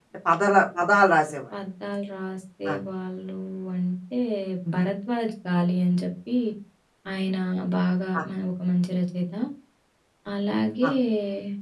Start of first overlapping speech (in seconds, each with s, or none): none